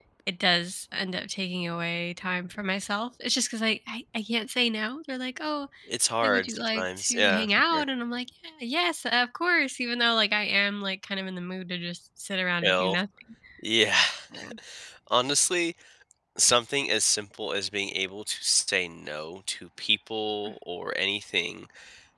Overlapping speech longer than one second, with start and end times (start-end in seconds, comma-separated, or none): 6.2-7.8